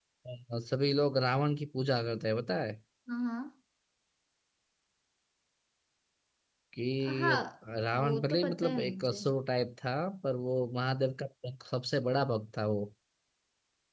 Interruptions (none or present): present